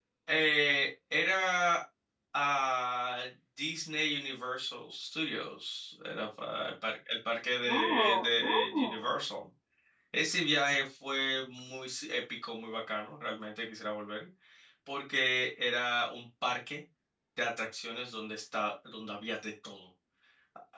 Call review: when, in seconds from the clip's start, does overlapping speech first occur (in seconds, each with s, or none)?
7.7 s